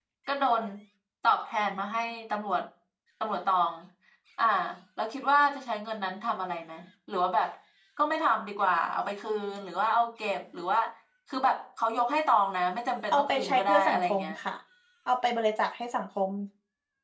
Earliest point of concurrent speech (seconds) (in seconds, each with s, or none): 13.1 s